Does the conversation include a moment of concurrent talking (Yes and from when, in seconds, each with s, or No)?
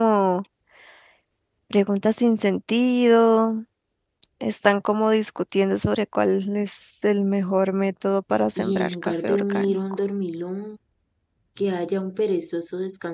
Yes, from 8.6 s